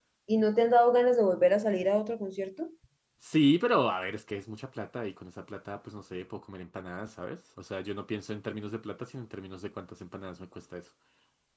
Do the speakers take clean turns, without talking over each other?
Yes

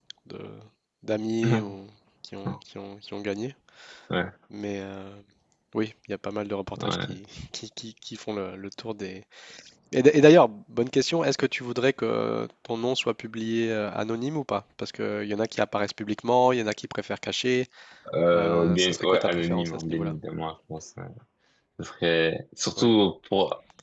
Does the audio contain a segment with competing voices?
Yes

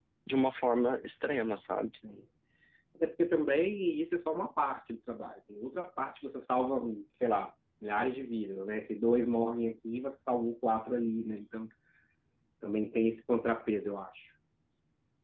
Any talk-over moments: No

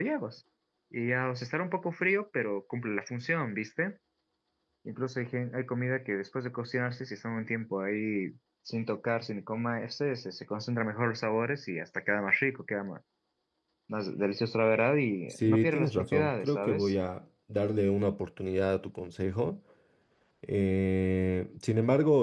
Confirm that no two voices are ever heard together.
No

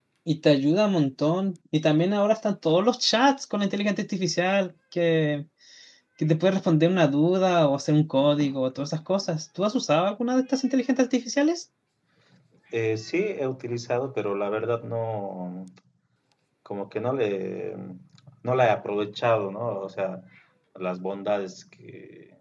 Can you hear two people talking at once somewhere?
No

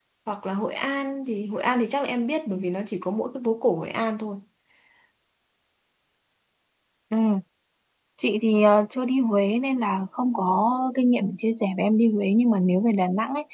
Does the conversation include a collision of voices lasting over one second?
No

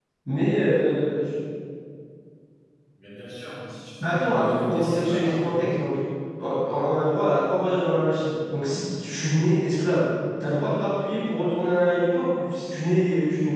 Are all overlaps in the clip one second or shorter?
No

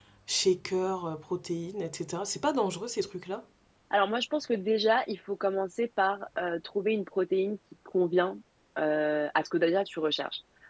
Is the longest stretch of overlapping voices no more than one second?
Yes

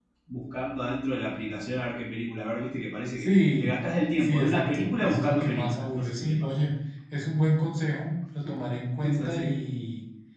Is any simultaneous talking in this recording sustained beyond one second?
Yes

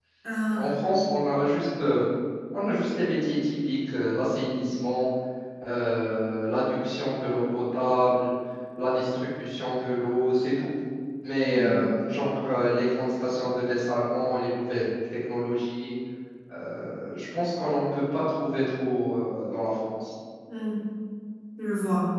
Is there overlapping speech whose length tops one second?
No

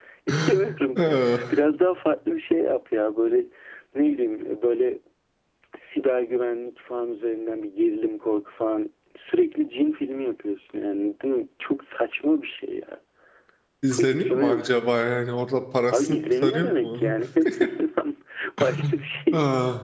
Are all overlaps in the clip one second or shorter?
No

